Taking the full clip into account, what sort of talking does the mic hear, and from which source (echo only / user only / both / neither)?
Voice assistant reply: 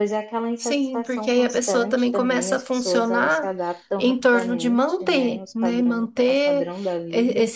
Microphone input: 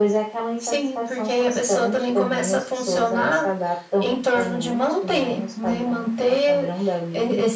echo only